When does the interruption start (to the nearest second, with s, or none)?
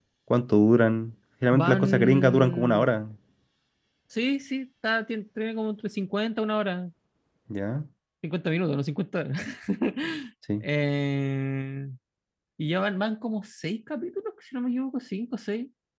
2 s